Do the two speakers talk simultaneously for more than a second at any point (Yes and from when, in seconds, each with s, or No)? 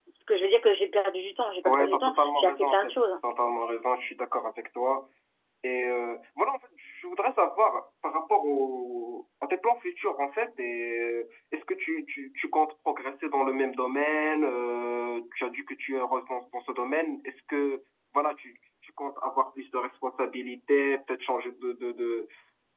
Yes, from 1.6 s